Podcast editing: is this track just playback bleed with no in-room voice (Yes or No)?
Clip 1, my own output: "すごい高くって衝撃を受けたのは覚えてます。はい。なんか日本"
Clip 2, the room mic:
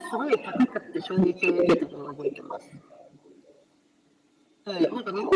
Yes